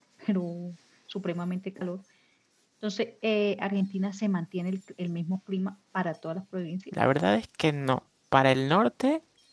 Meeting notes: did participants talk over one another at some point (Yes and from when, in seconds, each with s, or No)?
No